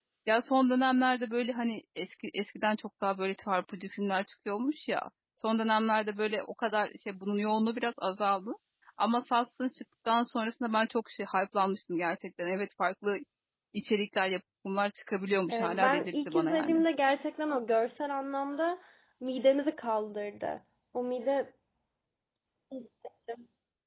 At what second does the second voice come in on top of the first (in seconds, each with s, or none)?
15.5 s